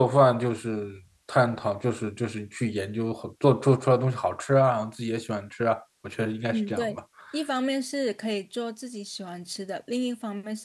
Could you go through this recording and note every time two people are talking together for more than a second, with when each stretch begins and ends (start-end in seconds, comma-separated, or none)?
none